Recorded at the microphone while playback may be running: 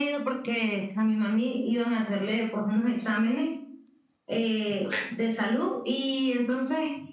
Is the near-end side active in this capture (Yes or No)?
No